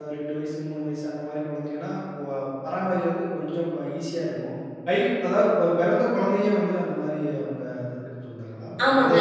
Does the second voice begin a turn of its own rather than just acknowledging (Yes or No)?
Yes